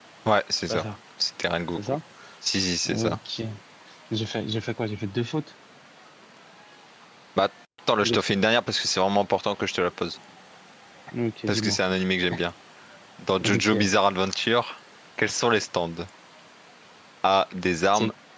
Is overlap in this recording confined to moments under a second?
Yes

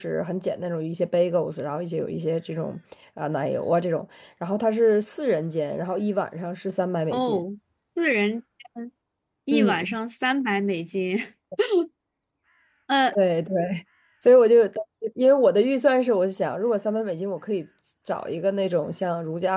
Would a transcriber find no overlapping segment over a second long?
Yes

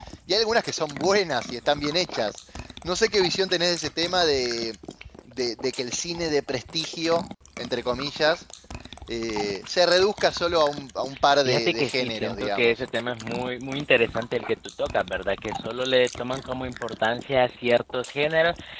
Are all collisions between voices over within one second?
No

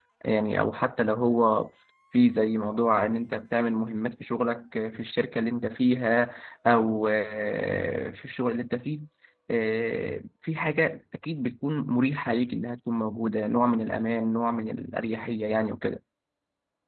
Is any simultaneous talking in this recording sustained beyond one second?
No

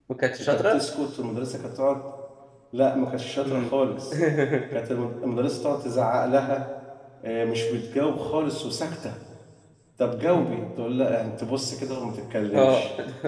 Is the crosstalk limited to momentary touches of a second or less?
Yes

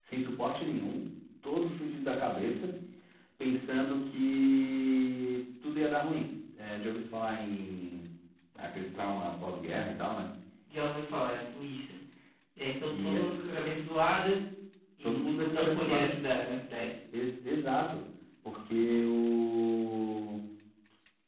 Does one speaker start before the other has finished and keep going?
Yes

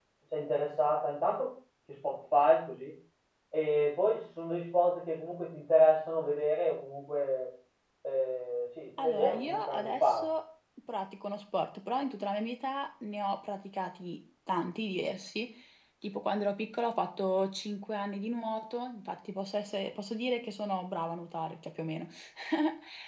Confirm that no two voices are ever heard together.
No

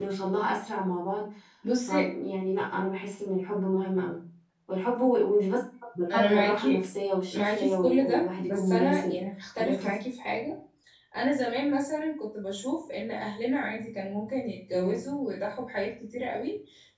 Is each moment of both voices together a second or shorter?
No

